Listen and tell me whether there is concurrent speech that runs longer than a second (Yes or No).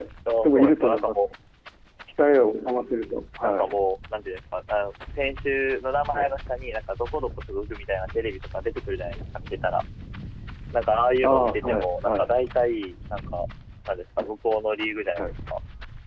Yes